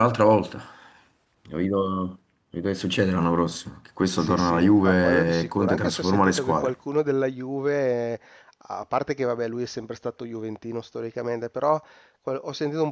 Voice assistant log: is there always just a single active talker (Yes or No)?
No